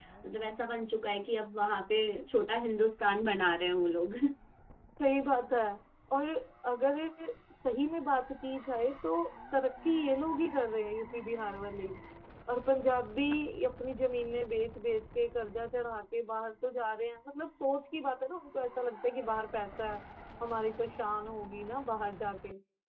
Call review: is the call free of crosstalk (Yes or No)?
Yes